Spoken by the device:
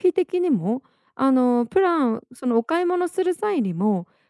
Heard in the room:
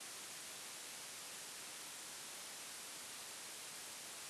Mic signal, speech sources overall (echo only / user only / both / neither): neither